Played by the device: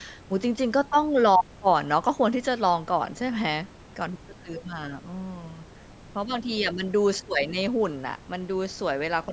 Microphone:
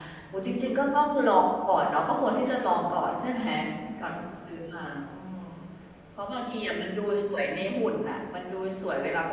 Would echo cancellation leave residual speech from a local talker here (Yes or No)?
No